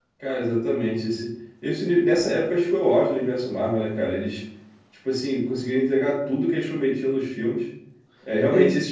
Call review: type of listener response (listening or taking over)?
listening